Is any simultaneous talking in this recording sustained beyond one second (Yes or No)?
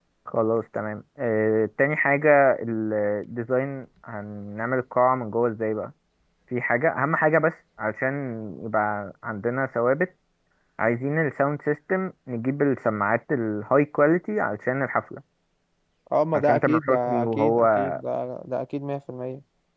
Yes